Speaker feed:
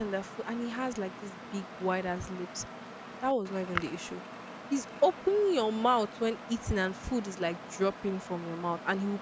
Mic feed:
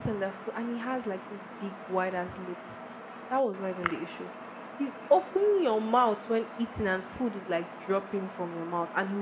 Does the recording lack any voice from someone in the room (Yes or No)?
Yes